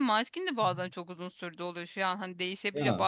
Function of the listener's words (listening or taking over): listening